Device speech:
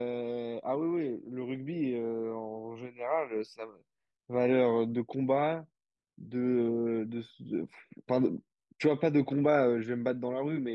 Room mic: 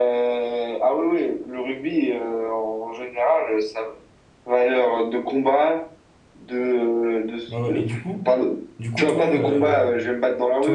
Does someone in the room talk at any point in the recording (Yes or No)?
Yes